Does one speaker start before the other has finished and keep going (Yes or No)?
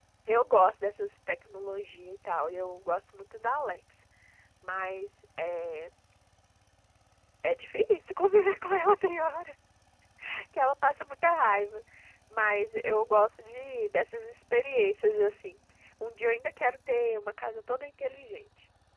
No